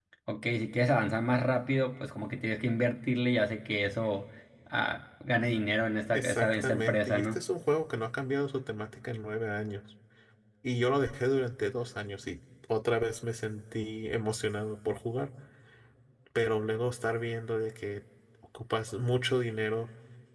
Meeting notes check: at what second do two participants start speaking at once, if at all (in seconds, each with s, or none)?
6.1 s